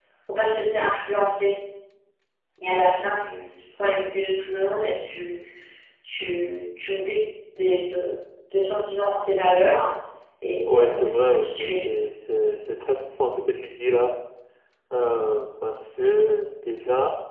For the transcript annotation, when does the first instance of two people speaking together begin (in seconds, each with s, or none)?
10.6 s